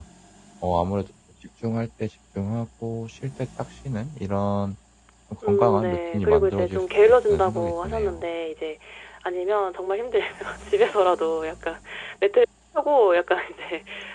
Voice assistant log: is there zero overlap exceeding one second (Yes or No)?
No